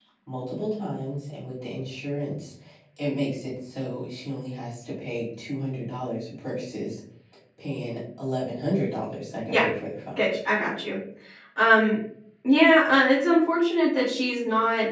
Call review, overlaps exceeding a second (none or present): none